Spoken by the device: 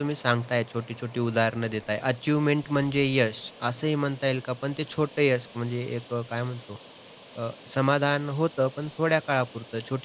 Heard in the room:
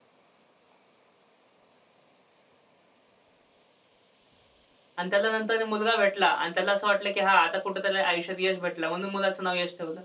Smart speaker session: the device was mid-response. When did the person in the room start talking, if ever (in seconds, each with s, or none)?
5.0 s